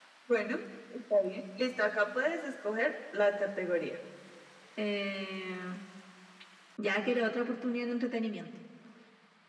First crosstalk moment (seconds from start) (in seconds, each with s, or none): none